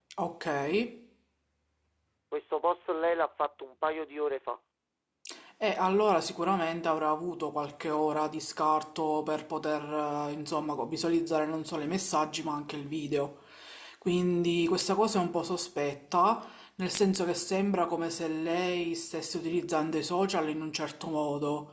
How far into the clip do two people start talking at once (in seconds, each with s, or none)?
none